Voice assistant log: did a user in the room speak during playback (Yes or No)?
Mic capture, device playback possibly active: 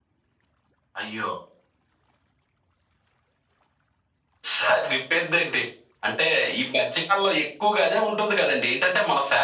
No